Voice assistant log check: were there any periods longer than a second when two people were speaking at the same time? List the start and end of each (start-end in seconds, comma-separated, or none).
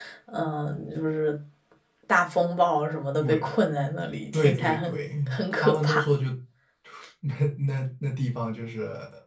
4.3-6.1